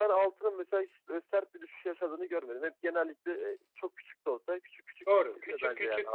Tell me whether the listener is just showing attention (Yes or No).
No